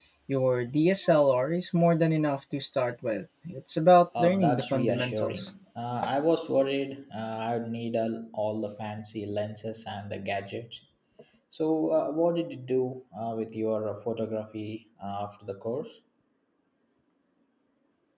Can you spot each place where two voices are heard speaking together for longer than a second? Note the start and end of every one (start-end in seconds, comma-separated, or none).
4.2-5.5